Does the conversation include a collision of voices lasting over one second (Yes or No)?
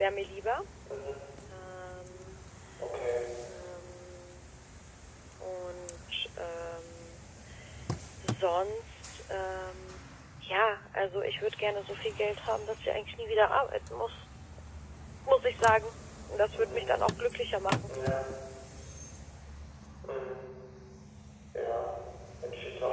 No